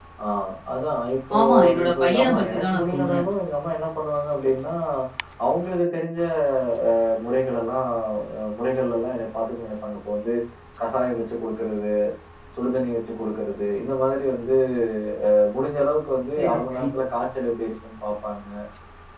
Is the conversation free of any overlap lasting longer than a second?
No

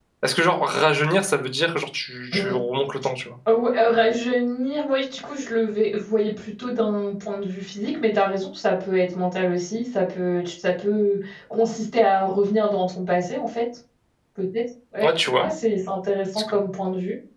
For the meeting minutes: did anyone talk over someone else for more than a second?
No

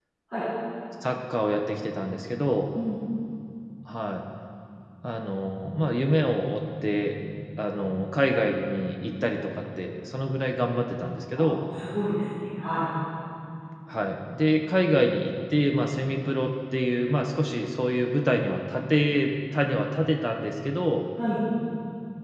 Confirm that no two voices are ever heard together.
Yes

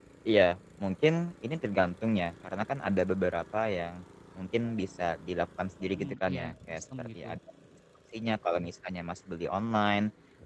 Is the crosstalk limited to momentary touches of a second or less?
No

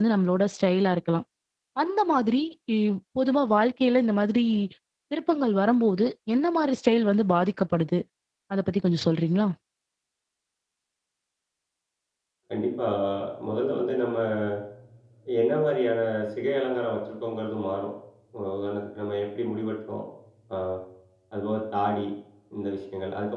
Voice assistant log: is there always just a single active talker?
Yes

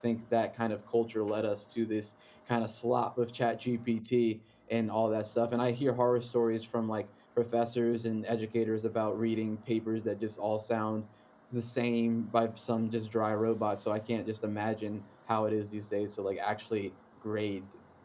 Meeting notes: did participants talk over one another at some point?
No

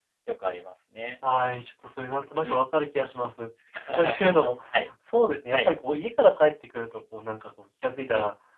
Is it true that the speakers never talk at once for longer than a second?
Yes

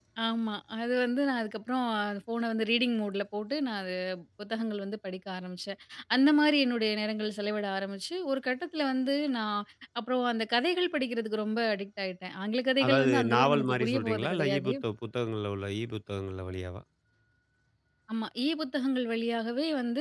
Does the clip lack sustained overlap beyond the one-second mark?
No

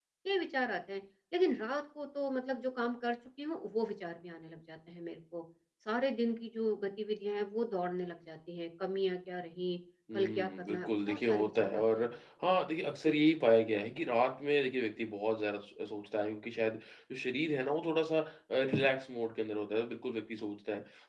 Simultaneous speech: Yes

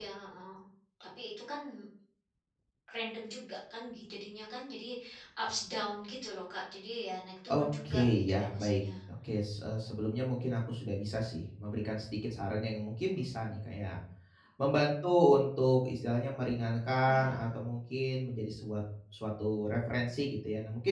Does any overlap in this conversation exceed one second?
Yes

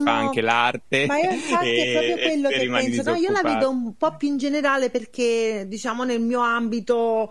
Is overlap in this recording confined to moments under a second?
No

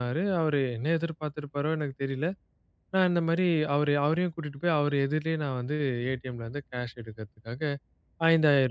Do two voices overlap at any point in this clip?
No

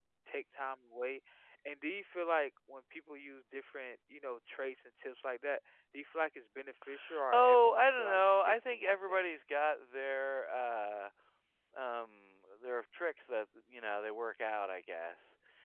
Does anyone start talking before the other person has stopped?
Yes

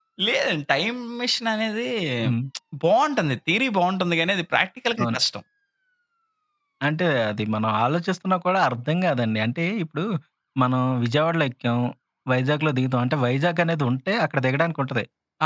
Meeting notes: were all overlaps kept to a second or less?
Yes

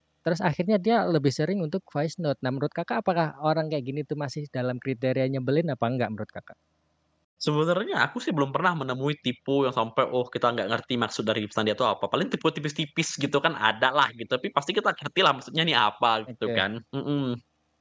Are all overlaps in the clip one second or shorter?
Yes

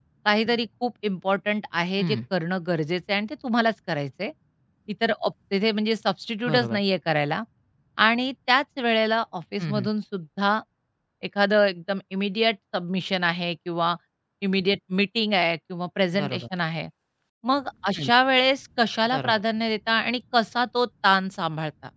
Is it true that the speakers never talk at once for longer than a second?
Yes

